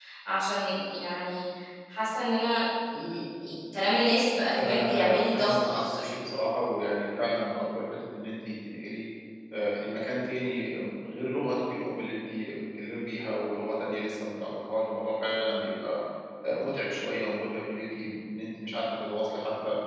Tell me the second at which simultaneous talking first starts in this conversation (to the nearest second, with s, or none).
5 s